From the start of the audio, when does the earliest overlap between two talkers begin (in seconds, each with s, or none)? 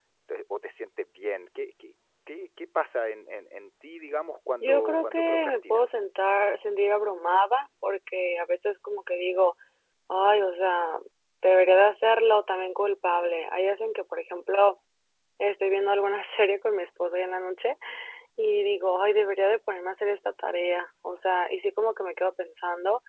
4.6 s